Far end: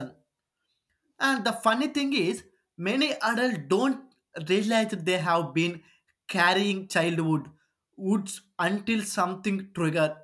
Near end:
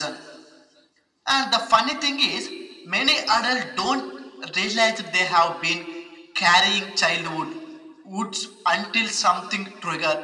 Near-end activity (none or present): none